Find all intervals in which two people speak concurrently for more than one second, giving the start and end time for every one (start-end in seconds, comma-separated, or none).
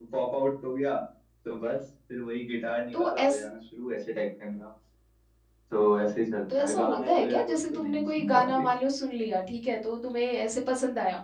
6.6-8.7